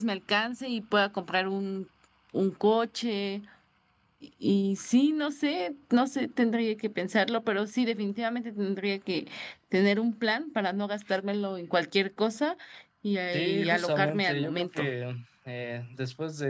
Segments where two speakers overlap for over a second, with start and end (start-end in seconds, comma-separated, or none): 13.3-14.9